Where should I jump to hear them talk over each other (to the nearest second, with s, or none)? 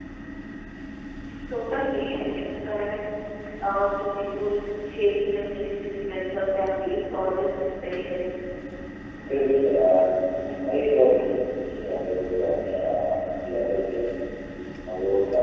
none